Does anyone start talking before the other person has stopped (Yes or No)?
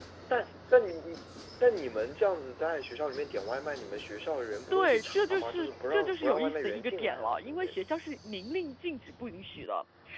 Yes